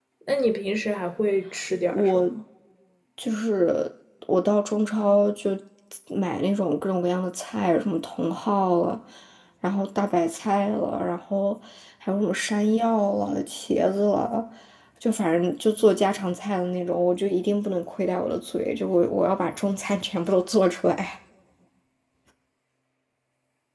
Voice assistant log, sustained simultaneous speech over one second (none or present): none